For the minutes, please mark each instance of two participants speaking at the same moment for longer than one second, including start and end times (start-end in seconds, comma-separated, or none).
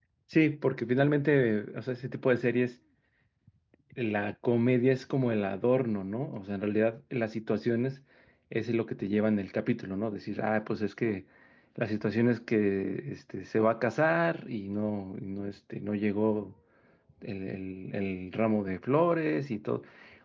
none